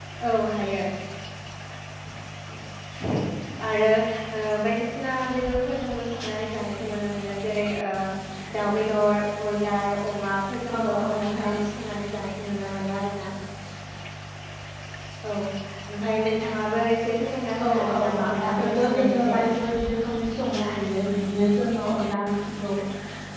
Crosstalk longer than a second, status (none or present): present